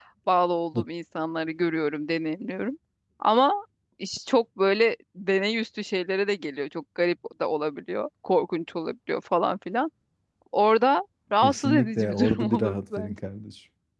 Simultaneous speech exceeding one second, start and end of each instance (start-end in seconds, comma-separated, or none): 11.4-13.2